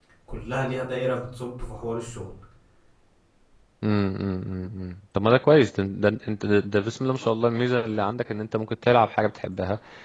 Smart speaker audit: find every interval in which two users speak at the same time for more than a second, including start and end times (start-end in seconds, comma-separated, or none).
none